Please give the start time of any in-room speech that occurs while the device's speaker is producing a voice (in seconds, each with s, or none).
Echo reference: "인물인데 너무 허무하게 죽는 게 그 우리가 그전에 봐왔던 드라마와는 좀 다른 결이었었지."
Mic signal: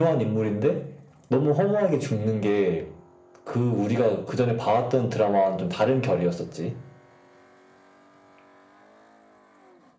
none